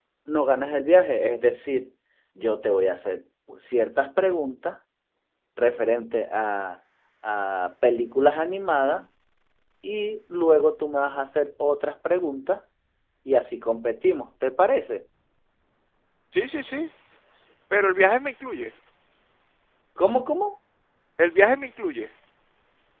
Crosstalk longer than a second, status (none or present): none